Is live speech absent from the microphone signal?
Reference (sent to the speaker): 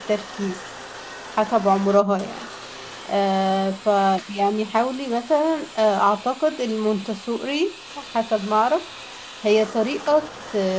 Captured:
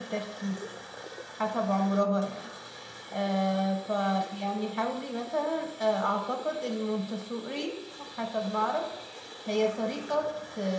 Yes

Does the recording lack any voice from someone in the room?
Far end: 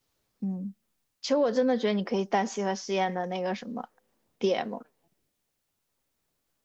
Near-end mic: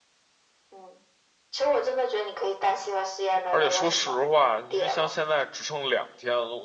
No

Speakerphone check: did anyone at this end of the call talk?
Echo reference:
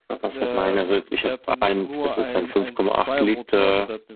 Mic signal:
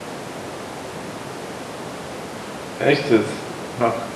Yes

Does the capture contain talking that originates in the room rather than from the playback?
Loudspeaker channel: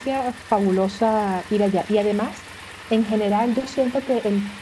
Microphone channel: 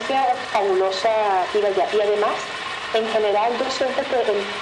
No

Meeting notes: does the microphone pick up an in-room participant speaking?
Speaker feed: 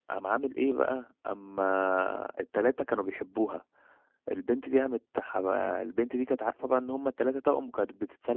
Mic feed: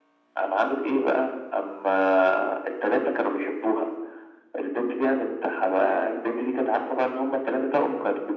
No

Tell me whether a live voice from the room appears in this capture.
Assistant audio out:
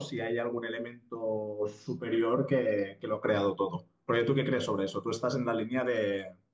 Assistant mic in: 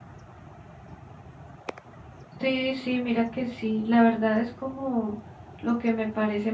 Yes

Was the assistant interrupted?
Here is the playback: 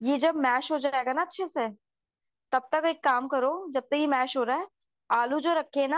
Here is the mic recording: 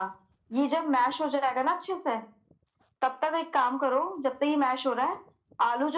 No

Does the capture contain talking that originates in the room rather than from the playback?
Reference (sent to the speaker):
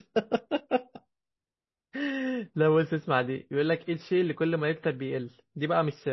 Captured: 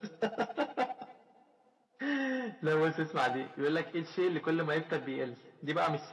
No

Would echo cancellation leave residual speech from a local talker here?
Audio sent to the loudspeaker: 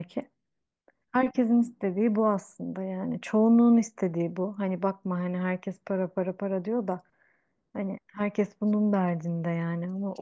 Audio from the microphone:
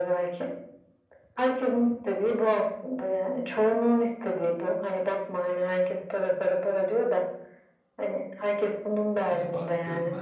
Yes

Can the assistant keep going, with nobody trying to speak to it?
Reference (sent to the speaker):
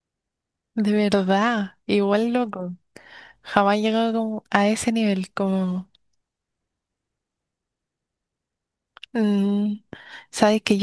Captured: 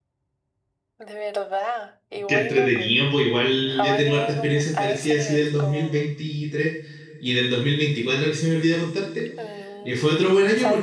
No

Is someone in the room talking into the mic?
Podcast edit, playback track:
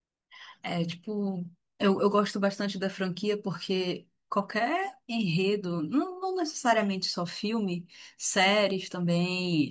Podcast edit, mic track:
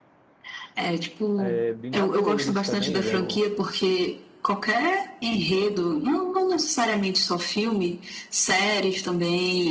Yes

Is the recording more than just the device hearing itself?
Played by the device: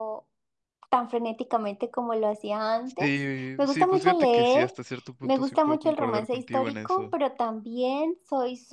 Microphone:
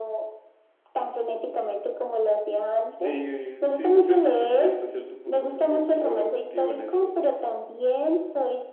No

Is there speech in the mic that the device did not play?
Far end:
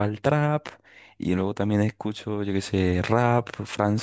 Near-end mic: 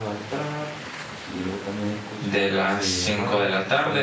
Yes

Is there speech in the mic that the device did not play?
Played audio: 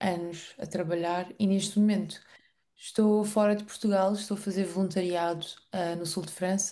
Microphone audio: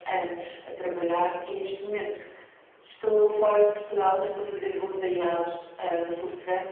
No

